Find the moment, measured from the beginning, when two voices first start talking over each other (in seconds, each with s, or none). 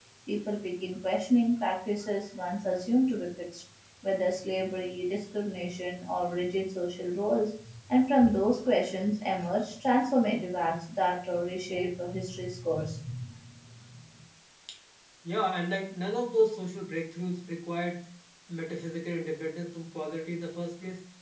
none